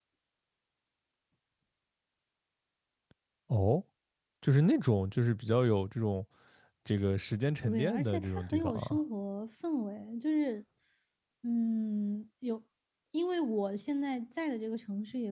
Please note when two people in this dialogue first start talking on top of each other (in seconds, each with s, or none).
7.6 s